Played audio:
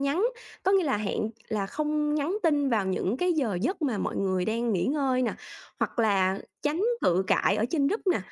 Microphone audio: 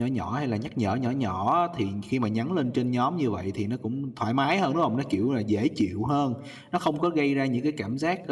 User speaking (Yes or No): Yes